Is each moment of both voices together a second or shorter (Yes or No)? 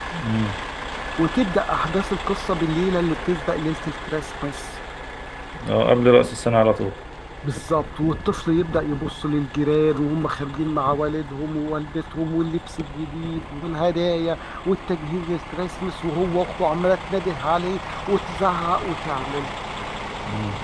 Yes